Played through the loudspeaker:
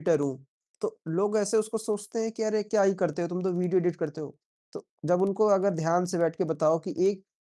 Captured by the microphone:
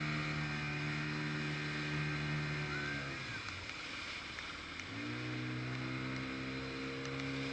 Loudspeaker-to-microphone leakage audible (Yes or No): No